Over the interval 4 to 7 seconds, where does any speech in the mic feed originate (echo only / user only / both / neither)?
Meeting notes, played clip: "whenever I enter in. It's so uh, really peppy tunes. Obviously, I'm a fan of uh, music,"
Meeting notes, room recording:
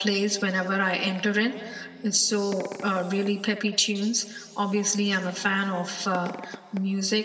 echo only